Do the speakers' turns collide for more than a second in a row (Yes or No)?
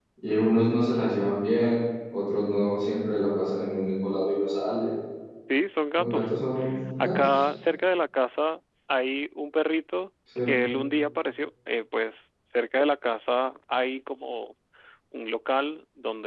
No